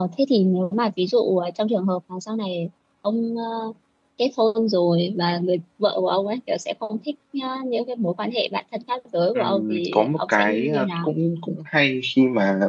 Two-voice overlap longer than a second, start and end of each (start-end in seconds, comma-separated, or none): 9.4-11.1